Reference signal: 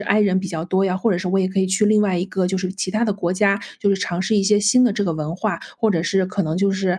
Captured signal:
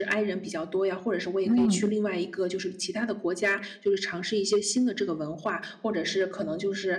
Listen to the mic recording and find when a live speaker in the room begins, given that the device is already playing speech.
1.4 s

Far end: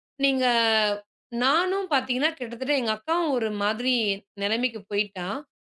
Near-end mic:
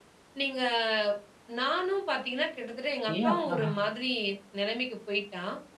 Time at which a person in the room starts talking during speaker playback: 3.1 s

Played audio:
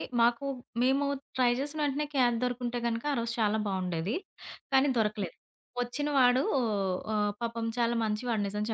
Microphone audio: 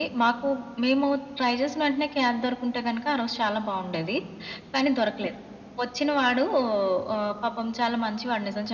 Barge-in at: none

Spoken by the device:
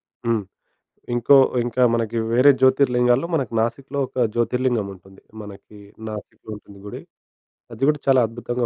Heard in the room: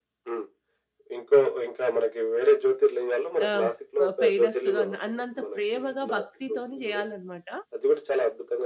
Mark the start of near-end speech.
3.5 s

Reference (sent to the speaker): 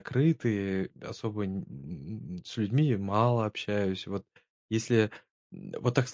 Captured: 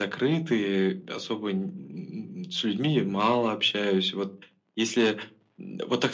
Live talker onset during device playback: none

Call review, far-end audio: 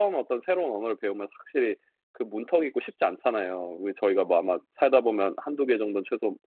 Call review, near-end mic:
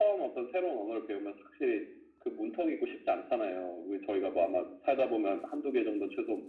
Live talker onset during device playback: none

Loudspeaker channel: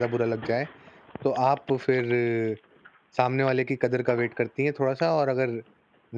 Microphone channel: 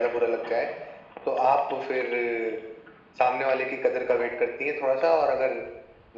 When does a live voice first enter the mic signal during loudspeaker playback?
none

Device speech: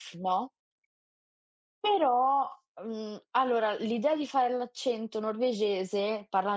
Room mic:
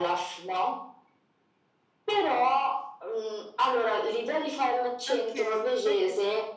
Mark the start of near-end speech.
5.1 s

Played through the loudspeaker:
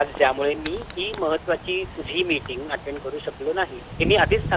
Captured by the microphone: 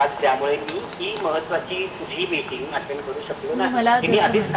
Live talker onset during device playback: 3.3 s

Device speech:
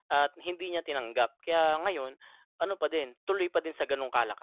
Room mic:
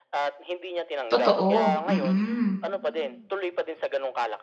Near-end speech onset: 1.1 s

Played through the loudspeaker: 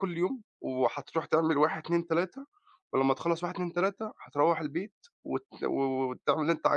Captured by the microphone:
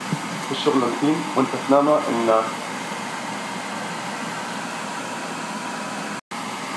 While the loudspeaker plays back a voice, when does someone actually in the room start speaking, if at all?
0.4 s

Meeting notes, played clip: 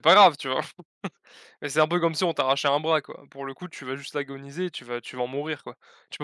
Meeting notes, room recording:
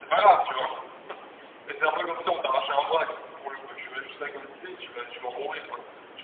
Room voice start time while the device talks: none

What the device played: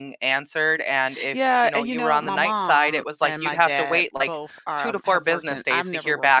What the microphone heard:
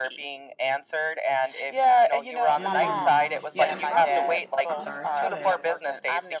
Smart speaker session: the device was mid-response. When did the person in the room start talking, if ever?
2.5 s

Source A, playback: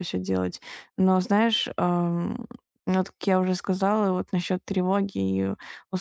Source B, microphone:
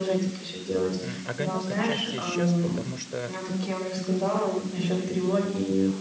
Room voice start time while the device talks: 1.0 s

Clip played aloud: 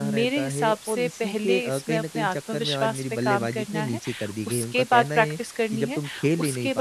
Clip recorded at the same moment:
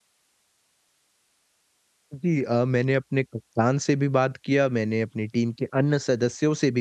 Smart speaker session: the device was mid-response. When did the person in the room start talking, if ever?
2.1 s

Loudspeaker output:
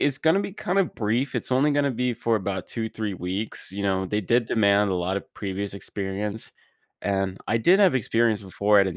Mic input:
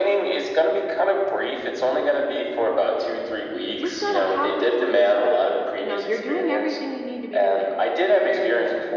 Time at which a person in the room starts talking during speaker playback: 3.6 s

